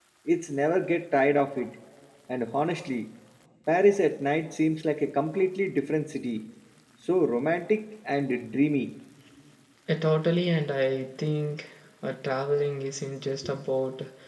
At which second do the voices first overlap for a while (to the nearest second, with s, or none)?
none